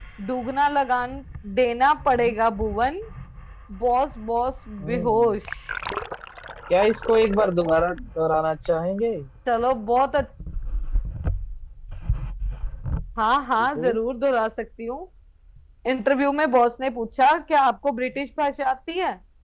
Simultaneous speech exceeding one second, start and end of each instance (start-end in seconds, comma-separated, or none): none